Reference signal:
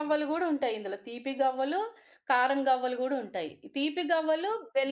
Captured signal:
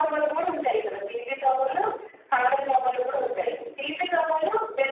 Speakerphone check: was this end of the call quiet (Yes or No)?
Yes